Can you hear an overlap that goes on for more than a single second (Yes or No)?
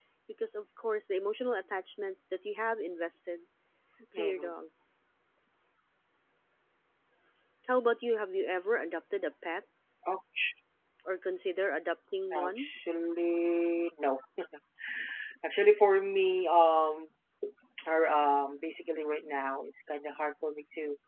No